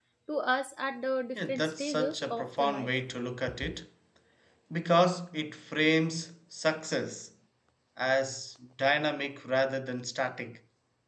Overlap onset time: 1.4 s

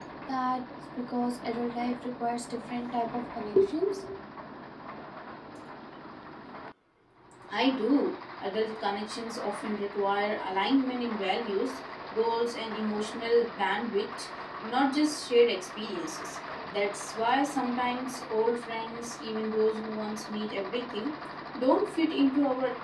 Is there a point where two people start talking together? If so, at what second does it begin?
none

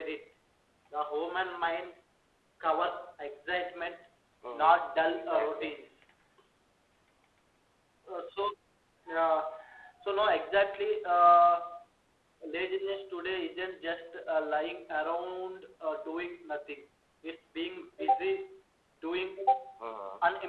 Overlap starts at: 4.5 s

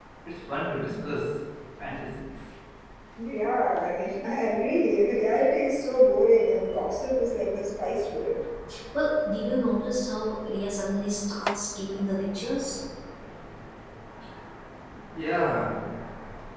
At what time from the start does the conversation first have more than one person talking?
none

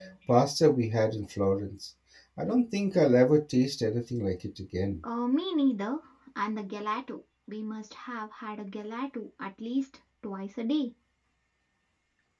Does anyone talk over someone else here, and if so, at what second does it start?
none

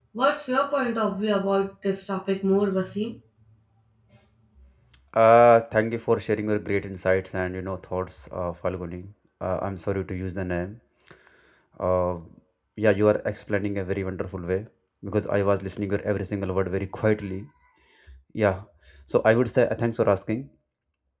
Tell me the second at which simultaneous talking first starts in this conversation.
none

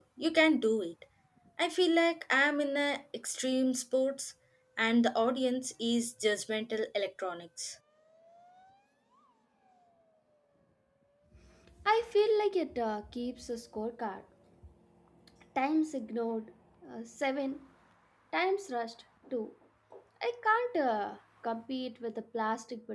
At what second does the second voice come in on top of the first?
none

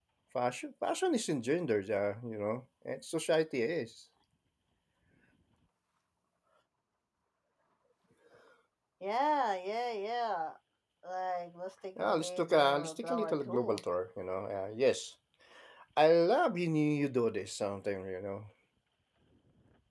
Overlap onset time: 12.0 s

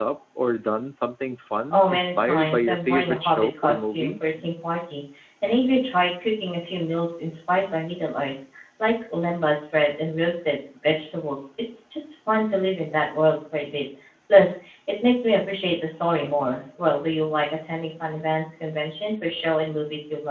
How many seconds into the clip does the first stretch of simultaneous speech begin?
1.7 s

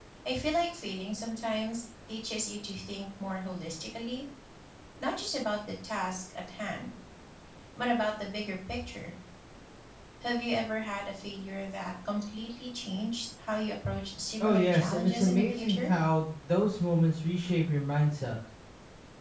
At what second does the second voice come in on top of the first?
14.4 s

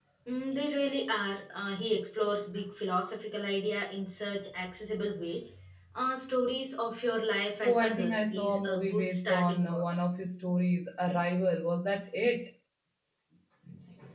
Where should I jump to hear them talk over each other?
7.6 s

